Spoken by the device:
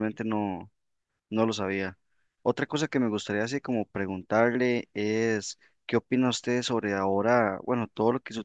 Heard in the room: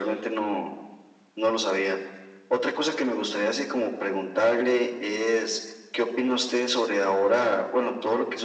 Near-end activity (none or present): none